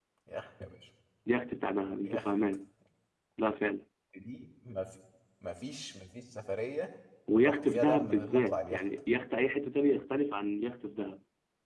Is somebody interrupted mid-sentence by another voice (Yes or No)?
Yes